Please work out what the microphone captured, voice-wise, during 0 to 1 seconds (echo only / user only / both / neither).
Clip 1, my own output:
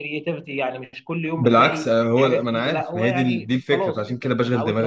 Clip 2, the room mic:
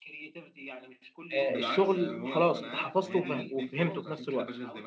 echo only